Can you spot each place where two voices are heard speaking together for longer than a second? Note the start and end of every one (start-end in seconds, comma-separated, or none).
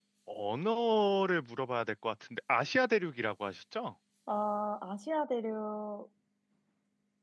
none